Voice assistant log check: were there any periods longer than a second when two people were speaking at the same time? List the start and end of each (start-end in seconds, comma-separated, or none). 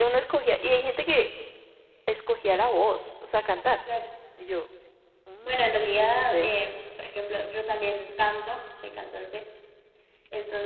none